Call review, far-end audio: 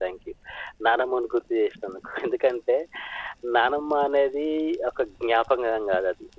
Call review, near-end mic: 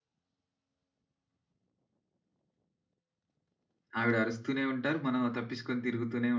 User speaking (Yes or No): Yes